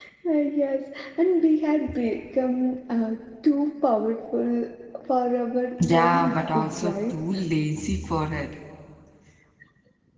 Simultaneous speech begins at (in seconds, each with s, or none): 5.8 s